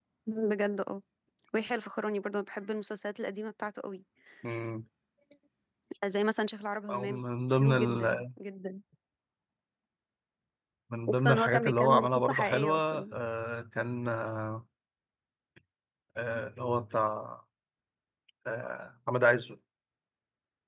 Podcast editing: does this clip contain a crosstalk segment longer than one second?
Yes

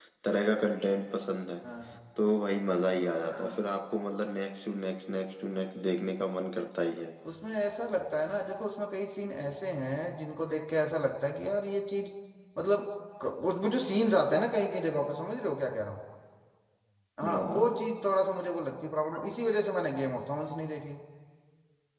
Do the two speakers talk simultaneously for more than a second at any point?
No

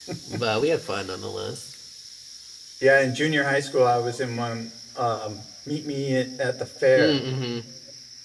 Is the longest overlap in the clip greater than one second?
No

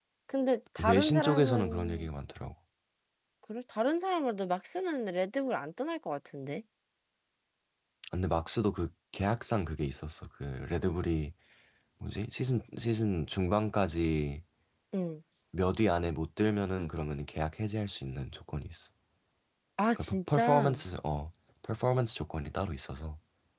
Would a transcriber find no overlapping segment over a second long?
No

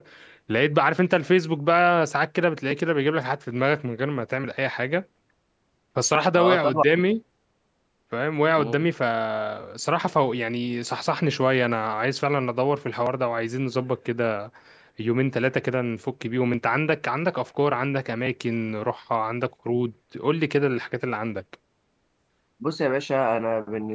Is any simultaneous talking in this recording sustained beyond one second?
No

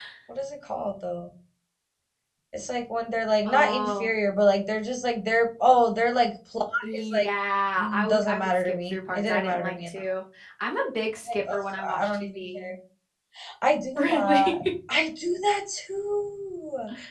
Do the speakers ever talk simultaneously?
Yes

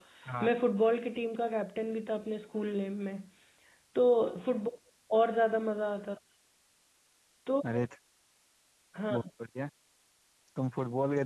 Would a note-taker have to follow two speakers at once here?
No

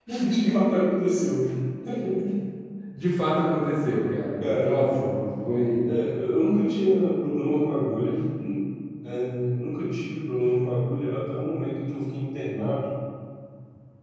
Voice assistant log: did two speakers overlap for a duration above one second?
No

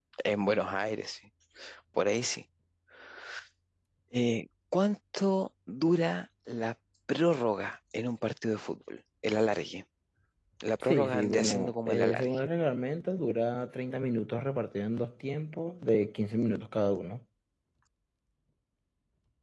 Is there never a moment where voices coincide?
No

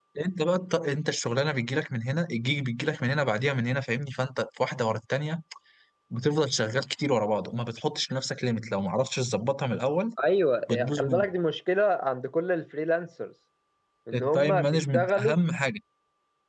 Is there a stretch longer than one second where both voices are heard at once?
Yes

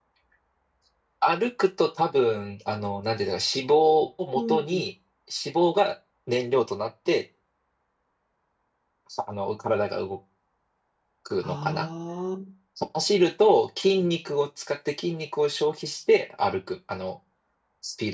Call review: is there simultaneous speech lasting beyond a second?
No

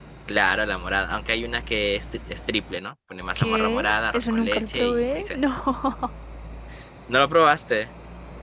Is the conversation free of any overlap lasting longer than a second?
No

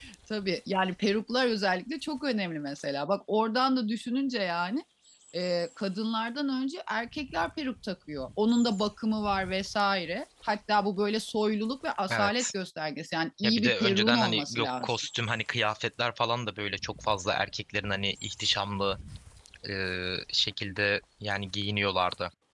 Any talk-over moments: Yes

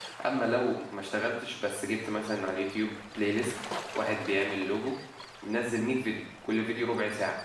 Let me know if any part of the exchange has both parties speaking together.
No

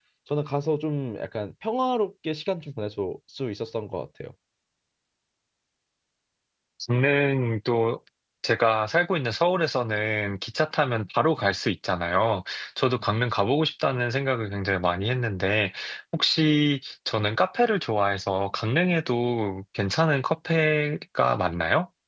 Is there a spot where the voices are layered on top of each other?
No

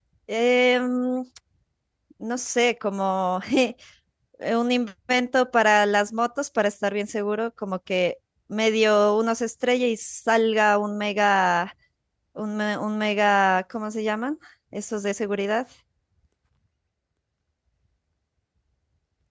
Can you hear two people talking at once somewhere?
No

